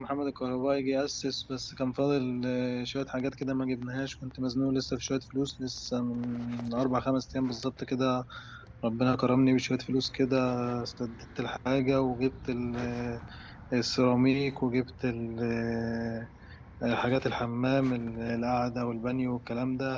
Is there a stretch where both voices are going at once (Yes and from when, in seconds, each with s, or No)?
No